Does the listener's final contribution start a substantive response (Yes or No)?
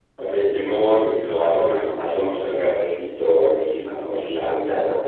Yes